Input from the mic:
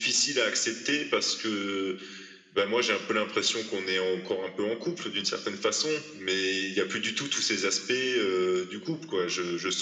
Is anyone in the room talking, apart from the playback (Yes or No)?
No